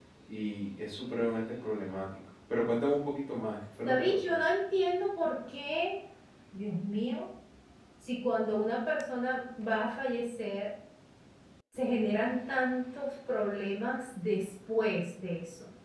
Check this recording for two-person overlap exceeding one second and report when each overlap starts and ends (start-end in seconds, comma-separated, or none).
none